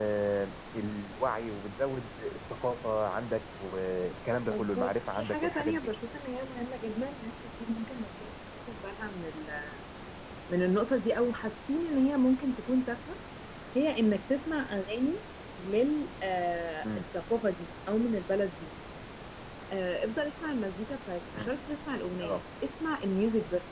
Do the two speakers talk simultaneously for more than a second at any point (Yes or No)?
Yes